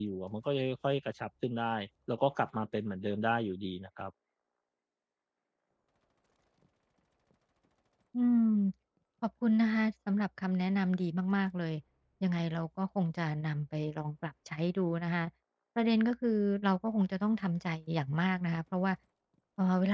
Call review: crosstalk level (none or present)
none